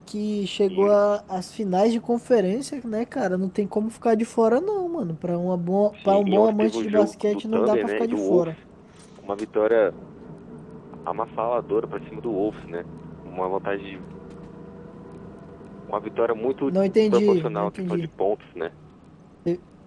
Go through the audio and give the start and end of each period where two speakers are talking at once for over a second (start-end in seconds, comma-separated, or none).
6.0-8.6, 16.7-18.1